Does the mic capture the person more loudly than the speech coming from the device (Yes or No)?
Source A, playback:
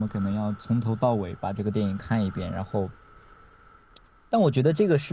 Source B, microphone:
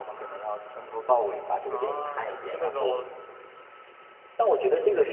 No